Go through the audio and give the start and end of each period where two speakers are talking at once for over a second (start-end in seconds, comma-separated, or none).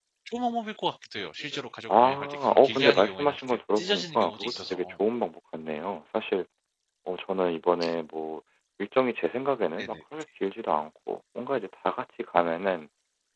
1.9-4.9